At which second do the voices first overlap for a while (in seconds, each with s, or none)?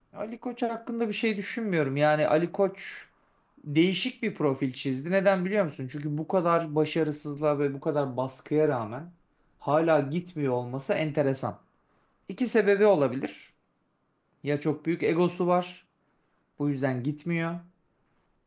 none